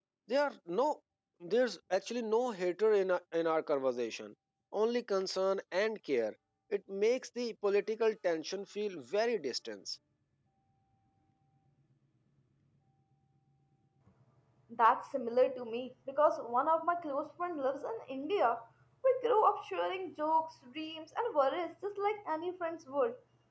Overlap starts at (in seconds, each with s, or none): none